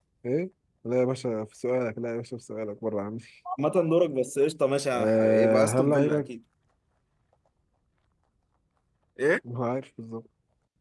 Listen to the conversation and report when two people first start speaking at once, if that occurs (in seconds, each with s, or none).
4.9 s